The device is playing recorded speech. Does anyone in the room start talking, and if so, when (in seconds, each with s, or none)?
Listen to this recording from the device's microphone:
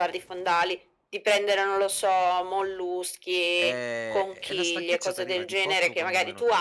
3.5 s